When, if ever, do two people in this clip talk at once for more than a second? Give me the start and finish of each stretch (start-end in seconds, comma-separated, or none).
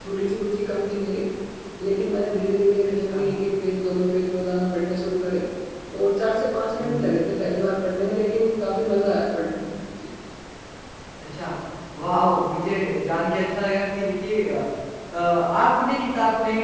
none